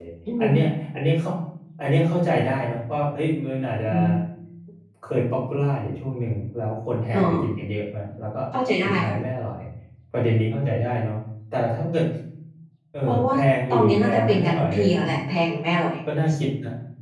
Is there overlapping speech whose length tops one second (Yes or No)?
Yes